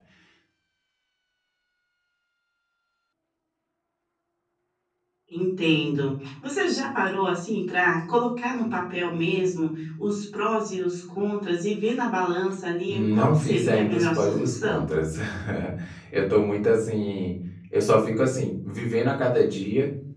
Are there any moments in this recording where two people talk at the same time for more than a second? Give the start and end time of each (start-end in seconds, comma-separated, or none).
12.9-14.8